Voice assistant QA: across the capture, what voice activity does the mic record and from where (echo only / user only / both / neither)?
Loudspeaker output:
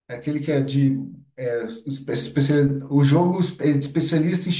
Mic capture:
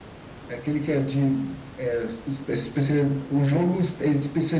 echo only